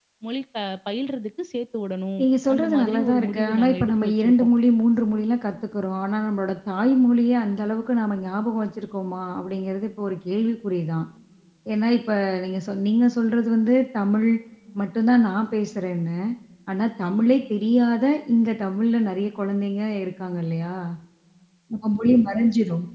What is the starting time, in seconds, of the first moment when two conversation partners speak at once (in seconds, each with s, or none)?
2.2 s